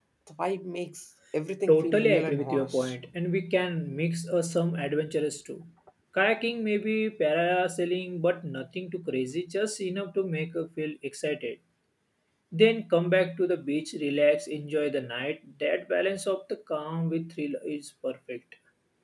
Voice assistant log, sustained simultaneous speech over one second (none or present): present